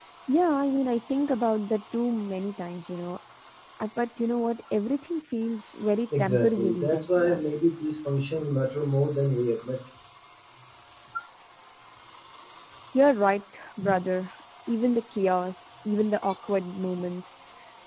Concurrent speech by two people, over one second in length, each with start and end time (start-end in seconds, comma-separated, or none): 6.2-7.4